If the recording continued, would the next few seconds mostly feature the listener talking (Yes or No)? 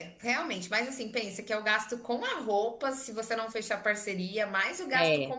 No